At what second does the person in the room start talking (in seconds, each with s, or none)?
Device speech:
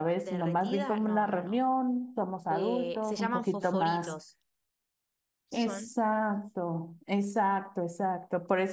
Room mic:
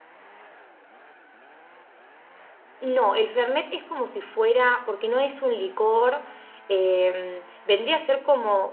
2.8 s